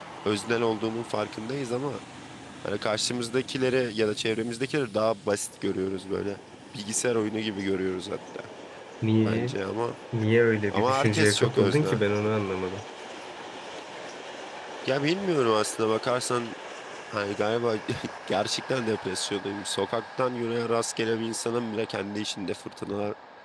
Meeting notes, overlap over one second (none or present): present